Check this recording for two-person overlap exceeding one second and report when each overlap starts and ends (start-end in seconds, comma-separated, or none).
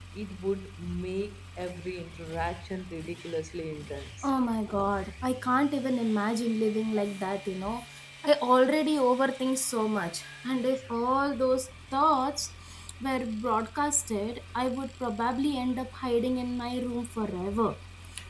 none